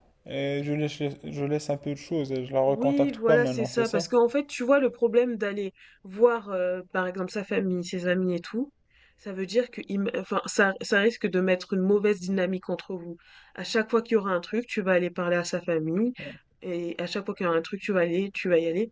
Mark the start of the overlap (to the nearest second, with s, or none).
3 s